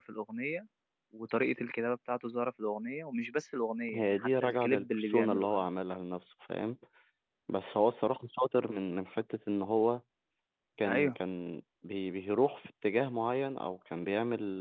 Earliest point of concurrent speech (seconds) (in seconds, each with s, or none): 3.9 s